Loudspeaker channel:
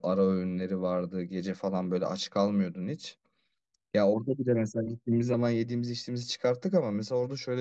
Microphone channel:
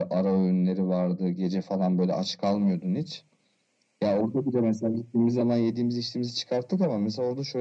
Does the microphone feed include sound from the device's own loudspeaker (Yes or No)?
Yes